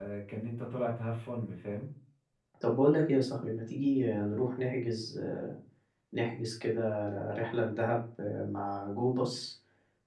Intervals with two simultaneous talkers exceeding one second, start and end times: none

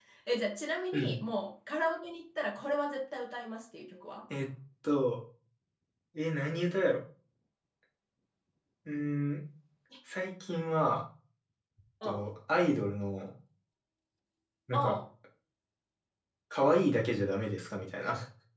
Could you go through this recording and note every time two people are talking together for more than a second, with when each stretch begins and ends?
none

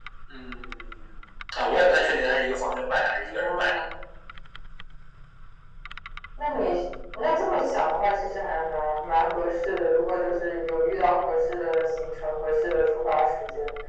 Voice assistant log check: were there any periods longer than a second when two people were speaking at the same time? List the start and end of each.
none

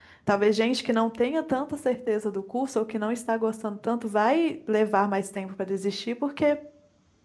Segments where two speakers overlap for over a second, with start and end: none

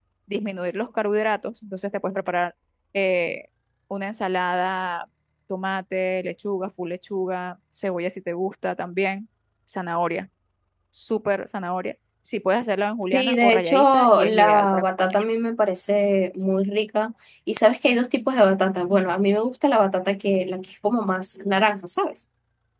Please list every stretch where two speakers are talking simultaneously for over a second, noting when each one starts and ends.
13.0-15.2

